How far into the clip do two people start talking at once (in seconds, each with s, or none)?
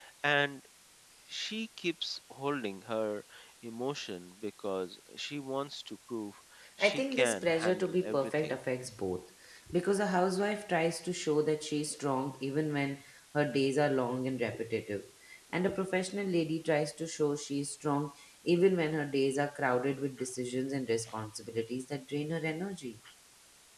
6.8 s